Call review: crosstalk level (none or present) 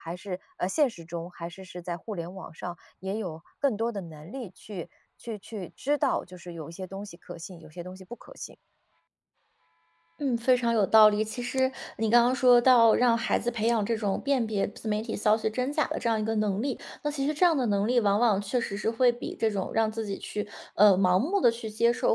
none